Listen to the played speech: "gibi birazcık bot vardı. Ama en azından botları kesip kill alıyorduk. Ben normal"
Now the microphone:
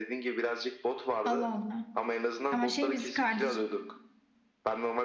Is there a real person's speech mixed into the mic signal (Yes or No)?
Yes